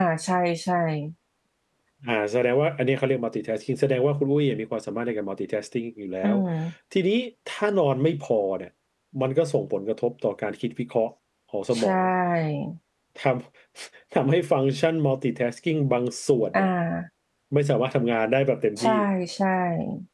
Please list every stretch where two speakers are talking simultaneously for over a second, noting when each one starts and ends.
none

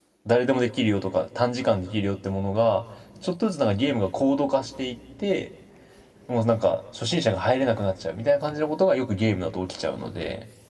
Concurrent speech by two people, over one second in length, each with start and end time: none

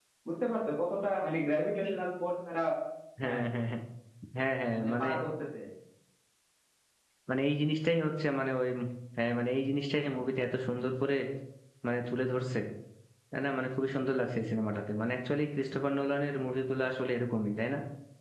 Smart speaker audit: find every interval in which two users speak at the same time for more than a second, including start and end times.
none

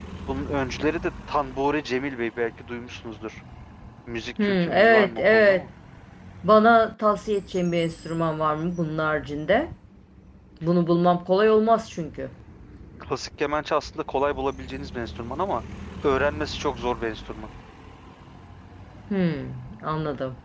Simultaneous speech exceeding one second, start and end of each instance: 4.4-5.6

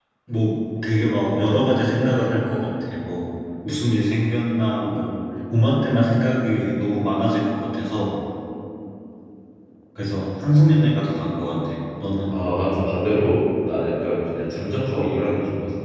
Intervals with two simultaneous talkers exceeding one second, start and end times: none

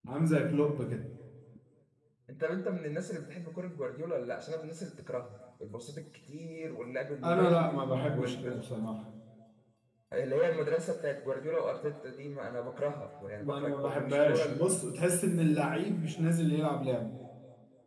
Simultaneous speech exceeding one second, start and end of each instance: 13.4-14.6

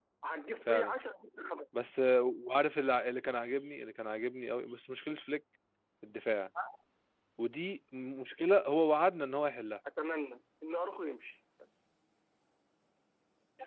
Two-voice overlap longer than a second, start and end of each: none

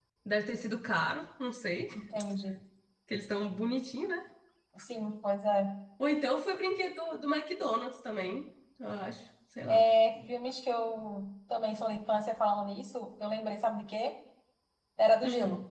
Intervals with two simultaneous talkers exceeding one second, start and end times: none

